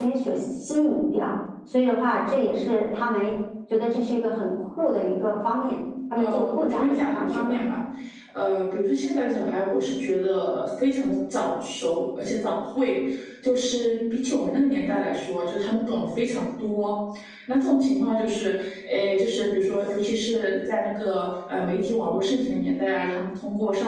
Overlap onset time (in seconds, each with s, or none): 6.2 s